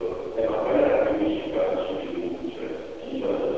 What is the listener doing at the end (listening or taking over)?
taking over